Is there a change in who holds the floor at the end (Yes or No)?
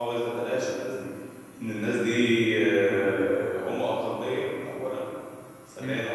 No